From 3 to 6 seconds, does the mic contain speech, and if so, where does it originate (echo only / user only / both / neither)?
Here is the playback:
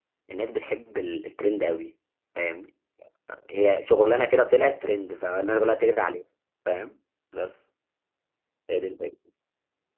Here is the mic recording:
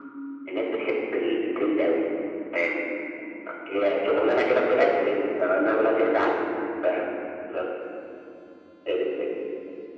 echo only